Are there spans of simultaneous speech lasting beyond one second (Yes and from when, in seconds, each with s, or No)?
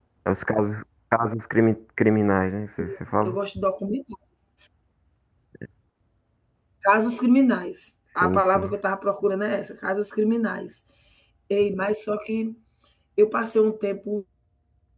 No